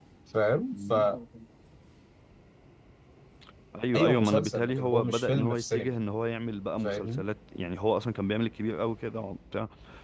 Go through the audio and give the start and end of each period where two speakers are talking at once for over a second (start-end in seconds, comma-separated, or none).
3.9-5.9